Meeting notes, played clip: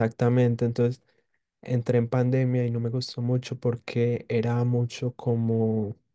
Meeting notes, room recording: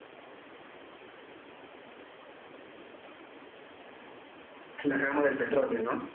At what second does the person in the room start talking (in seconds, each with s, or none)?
4.8 s